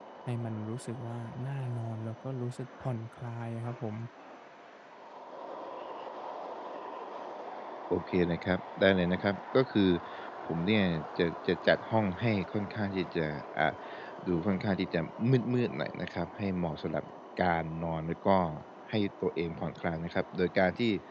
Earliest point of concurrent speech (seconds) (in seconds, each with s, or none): none